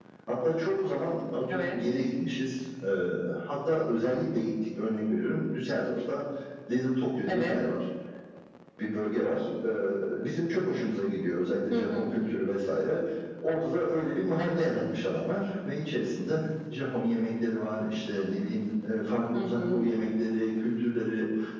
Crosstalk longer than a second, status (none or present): none